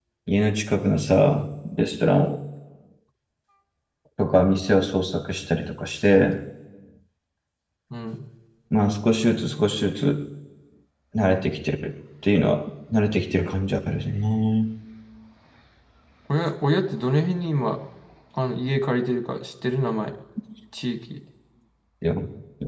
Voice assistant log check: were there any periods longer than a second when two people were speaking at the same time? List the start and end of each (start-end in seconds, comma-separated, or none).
none